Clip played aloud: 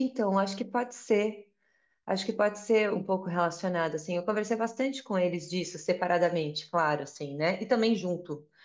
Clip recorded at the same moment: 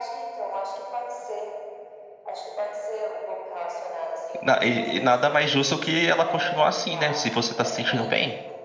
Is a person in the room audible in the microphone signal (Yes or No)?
Yes